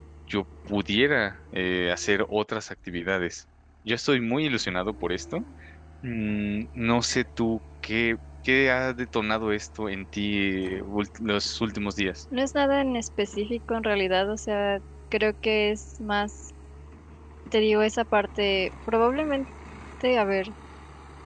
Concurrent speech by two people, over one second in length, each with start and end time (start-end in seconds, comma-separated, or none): none